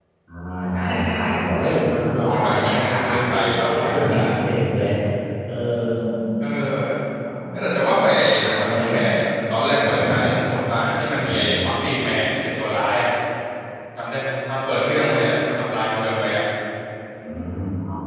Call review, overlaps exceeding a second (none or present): present